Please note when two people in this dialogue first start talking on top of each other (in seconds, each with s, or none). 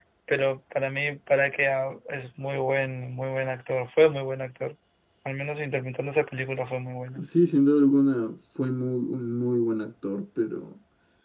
none